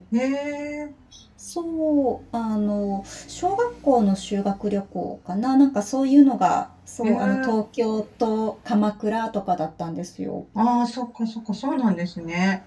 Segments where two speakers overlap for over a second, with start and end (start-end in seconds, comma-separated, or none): none